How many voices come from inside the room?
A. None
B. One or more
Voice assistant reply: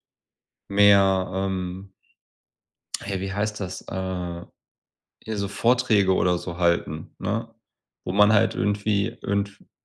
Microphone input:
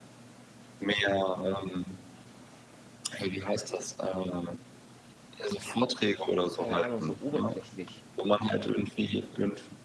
B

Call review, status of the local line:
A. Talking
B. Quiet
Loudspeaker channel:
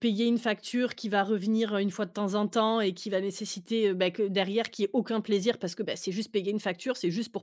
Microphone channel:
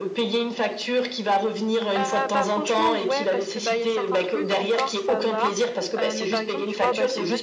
A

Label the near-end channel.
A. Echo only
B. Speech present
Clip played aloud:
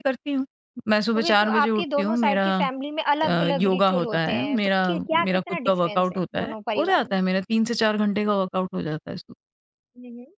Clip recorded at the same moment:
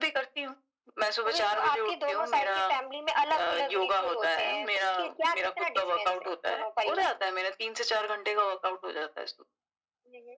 A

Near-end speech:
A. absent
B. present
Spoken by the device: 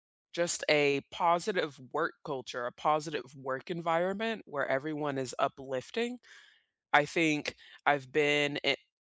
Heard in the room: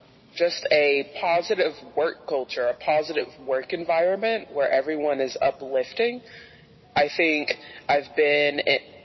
A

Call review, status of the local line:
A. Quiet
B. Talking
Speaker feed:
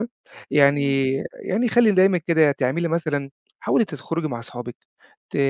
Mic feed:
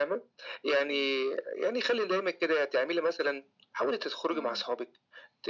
B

